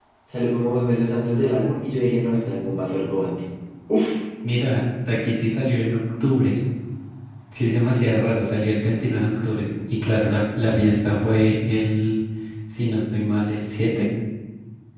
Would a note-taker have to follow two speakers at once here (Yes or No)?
No